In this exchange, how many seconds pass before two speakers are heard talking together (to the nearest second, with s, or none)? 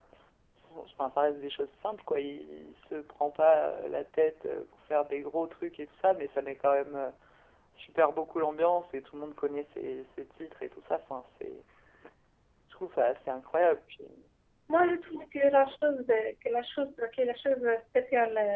none